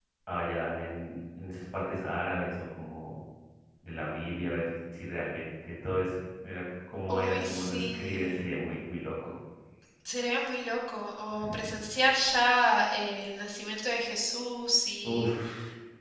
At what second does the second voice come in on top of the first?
7.1 s

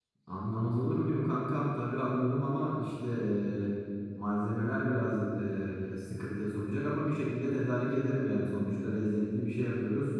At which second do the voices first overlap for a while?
none

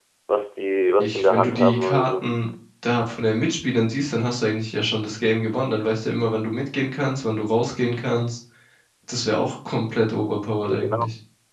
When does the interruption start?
1.0 s

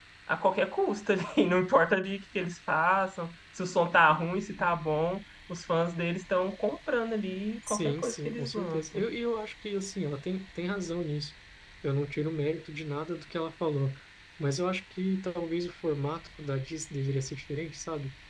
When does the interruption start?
7.7 s

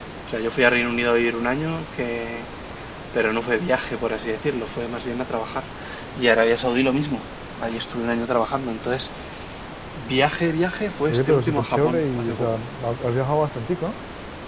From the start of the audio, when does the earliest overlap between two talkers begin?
11.1 s

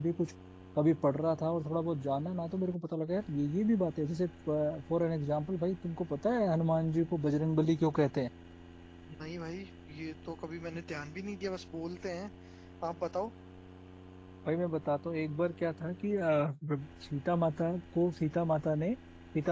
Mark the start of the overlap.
none

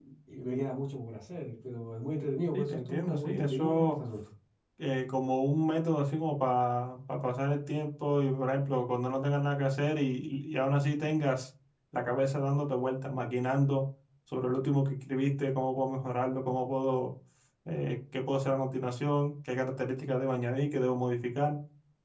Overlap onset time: 2.5 s

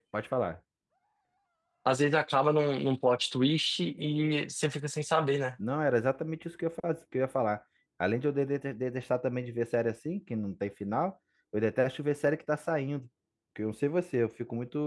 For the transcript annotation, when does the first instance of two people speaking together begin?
none

